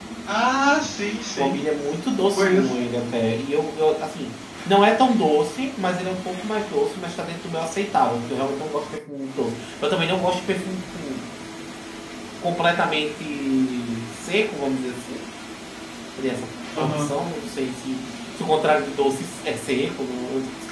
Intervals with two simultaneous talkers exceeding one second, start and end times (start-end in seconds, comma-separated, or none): none